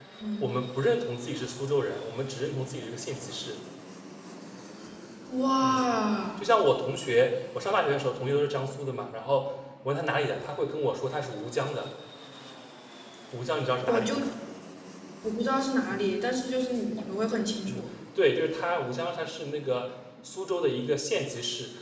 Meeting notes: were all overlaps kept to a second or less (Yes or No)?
Yes